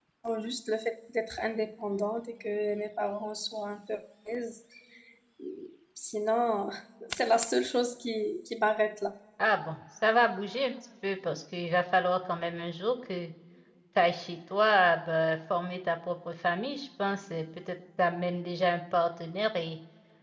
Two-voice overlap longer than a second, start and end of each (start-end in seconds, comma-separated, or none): none